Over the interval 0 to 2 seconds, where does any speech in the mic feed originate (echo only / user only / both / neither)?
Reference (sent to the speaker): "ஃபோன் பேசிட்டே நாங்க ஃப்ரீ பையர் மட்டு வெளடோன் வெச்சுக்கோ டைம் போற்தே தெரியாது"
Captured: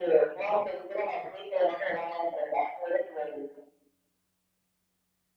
echo only